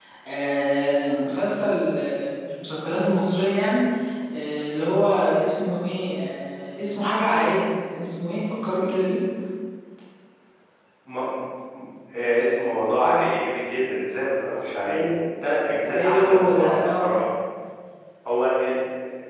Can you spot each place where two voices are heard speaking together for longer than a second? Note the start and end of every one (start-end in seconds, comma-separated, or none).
15.8-17.1